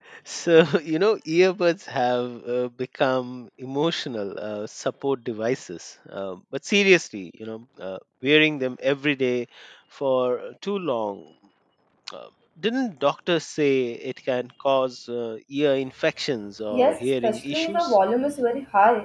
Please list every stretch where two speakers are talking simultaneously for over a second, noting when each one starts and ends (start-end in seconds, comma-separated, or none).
16.7-17.9